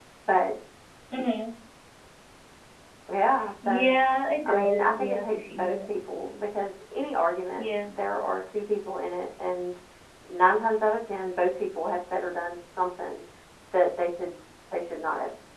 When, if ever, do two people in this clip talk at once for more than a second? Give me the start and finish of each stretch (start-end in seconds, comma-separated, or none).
4.5-5.8